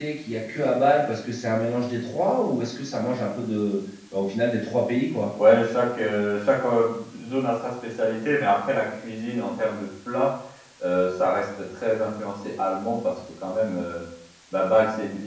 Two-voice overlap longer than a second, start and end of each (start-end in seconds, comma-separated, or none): none